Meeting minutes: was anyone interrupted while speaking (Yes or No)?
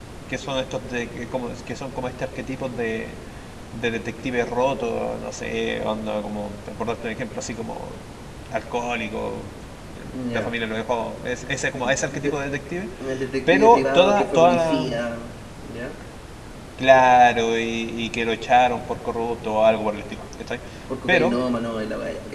Yes